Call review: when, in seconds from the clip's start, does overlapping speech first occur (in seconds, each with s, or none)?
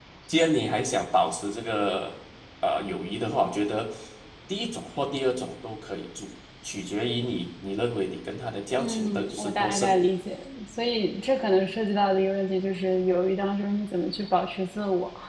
8.8 s